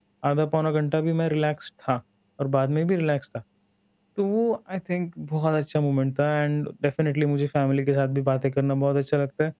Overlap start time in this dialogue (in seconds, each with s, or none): none